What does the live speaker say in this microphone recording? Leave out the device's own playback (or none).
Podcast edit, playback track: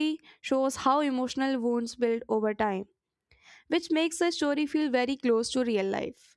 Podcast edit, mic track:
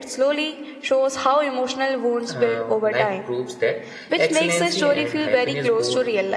uh, life proves that excellency and happiness go